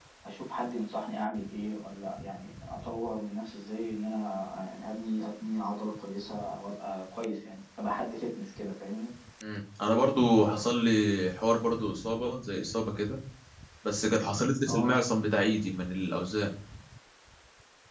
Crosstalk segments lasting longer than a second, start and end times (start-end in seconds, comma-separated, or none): none